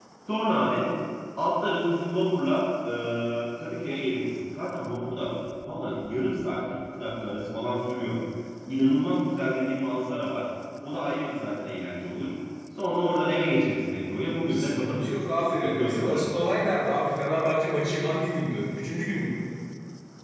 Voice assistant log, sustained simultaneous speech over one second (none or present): present